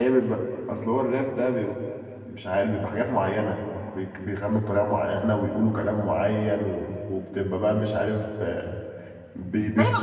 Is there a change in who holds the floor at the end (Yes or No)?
Yes